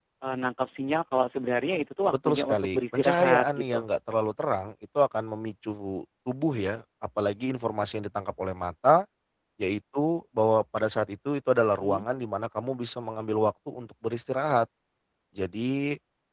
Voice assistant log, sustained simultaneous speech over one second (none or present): present